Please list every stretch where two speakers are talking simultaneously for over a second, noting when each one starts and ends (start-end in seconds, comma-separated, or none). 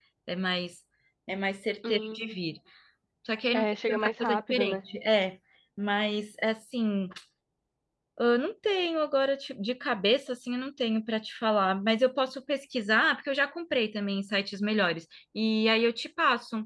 3.5-4.8